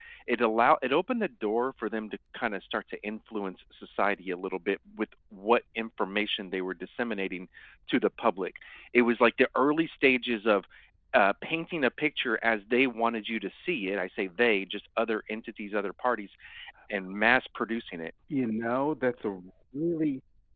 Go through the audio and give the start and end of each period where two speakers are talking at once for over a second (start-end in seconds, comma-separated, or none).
none